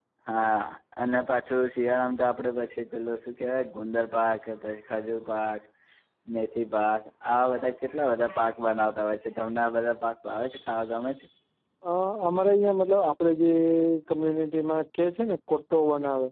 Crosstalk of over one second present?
No

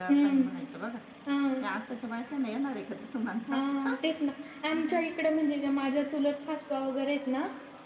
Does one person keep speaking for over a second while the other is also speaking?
No

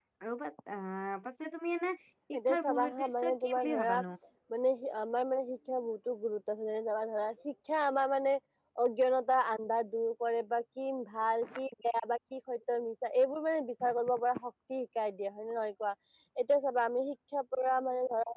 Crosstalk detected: Yes, from 2.3 s

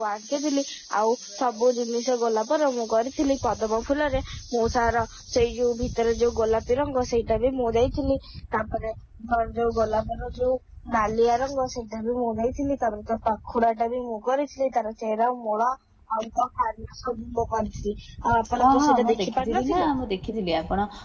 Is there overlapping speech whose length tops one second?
Yes, from 18.6 s

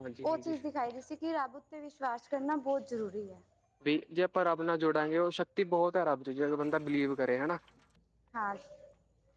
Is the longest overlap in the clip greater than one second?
No

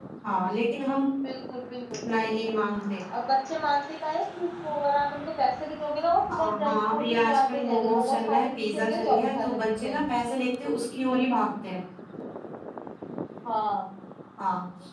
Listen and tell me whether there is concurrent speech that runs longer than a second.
Yes, from 6.3 s

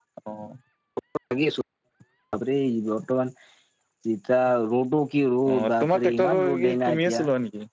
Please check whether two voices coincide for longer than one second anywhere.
Yes, from 5.5 s

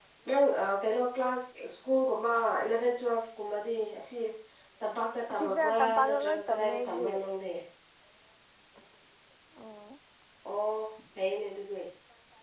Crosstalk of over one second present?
Yes, from 5.3 s

